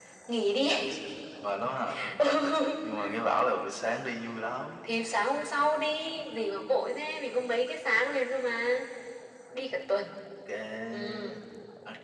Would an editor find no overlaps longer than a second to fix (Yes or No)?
Yes